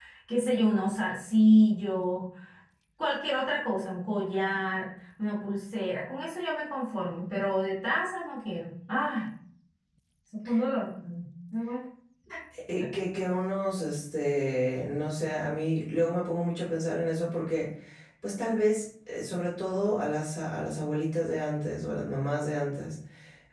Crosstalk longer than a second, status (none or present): none